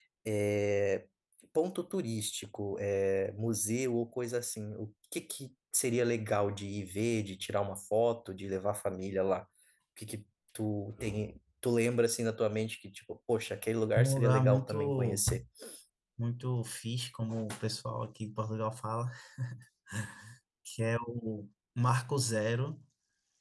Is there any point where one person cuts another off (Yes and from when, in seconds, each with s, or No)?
Yes, from 14.0 s